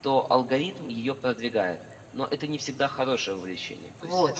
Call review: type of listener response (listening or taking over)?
taking over